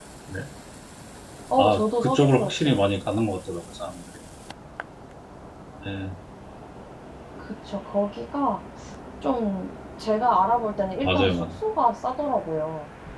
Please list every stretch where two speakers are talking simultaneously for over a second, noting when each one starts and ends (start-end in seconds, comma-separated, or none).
1.6-2.8